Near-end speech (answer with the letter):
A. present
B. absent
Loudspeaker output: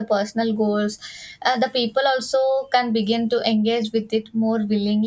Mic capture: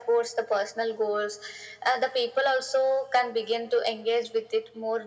B